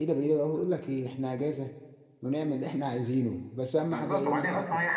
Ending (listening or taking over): taking over